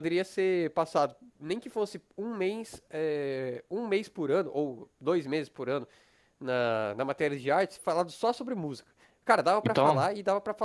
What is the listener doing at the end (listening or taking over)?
listening